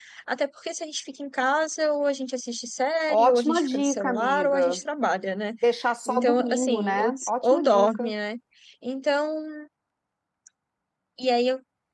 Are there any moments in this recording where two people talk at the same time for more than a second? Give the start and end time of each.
3.1-4.8, 6.1-8.1

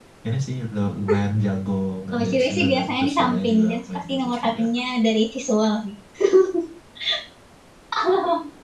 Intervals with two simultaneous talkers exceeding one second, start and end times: 2.1-4.6

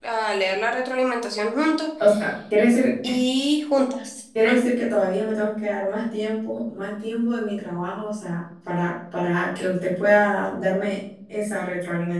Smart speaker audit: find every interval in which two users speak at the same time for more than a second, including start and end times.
none

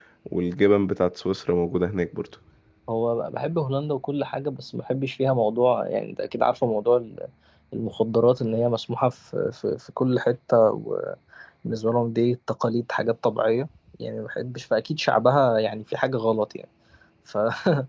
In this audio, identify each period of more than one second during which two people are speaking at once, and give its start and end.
none

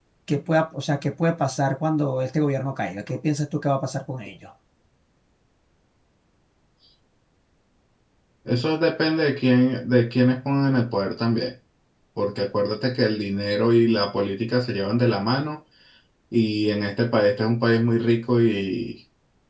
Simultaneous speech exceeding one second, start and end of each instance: none

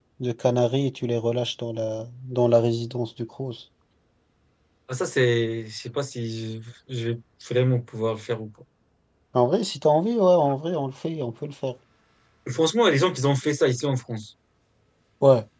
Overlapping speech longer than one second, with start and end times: none

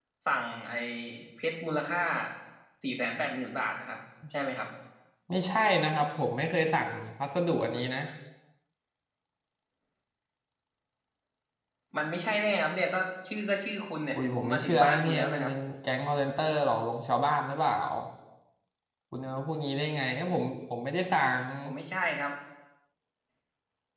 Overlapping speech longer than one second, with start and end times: 14.1-15.5

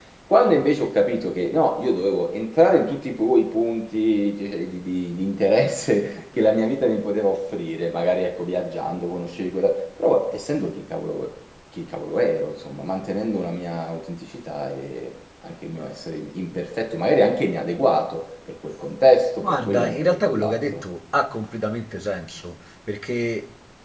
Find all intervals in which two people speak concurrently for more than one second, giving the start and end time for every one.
19.4-20.8

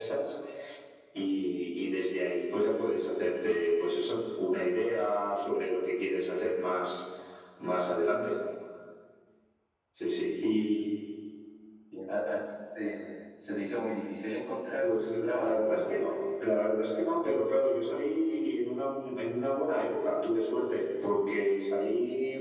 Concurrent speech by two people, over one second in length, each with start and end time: 14.8-16.1

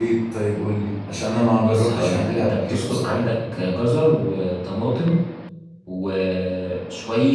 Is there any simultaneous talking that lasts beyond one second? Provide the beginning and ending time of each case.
1.6-3.2

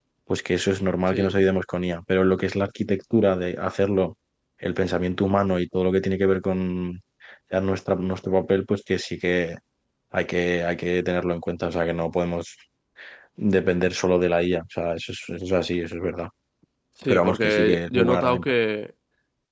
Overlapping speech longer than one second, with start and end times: 17.1-18.5

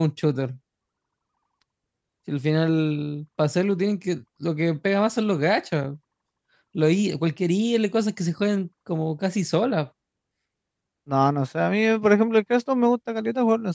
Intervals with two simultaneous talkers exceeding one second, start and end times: none

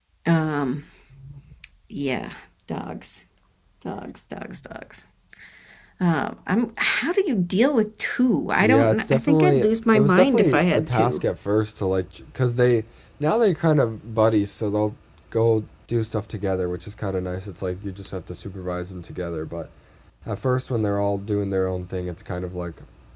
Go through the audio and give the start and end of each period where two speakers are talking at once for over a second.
8.6-11.2

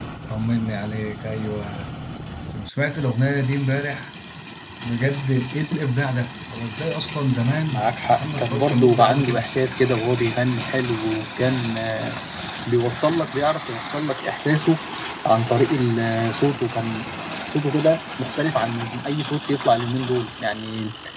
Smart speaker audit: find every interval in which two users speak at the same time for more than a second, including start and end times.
7.7-9.5

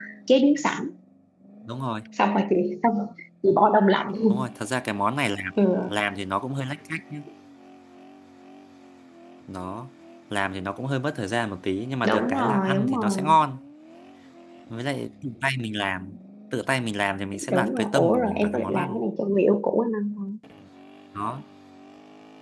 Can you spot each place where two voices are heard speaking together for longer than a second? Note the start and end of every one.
12.1-13.4, 17.5-19.0

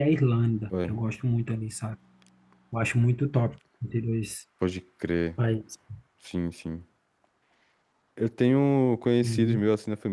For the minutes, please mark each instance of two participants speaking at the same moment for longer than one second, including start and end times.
none

